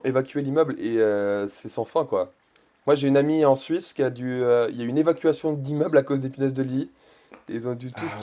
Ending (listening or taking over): listening